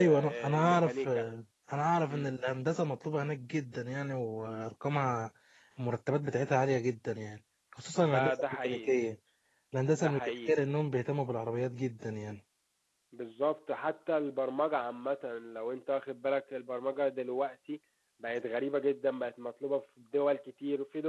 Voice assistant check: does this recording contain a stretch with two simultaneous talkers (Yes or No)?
Yes